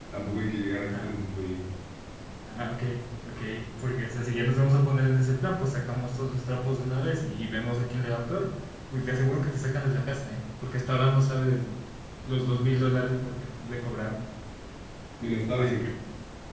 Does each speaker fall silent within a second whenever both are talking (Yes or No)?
Yes